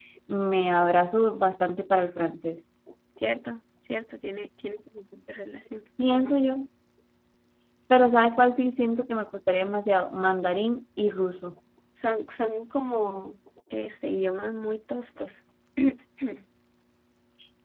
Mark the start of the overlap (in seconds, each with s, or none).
none